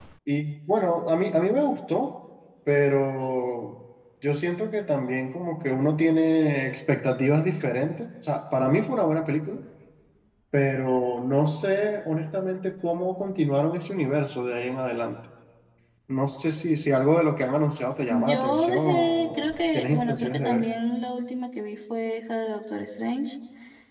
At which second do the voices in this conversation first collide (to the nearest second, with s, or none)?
18 s